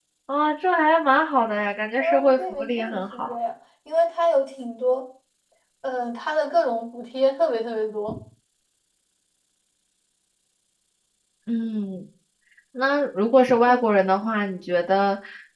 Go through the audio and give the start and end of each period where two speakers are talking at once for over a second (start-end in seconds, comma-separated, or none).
2.0-3.4